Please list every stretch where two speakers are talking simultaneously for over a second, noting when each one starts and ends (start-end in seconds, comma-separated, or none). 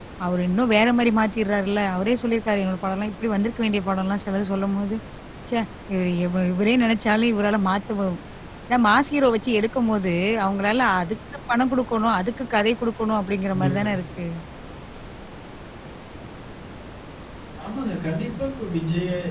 none